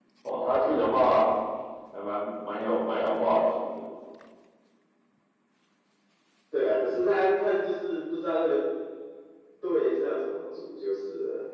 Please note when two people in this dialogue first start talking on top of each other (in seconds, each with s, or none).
none